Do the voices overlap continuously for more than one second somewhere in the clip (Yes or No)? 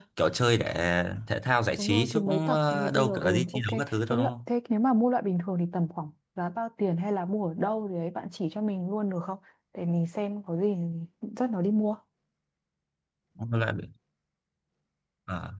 Yes